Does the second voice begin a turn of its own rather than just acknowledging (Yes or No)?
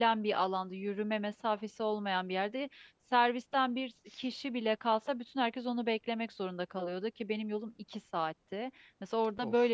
No